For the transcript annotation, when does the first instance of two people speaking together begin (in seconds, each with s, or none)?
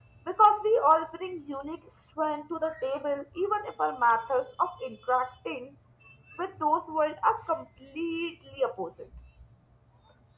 none